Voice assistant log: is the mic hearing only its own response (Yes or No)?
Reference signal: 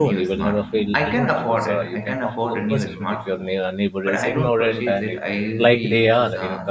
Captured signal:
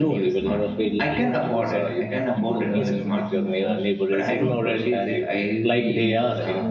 No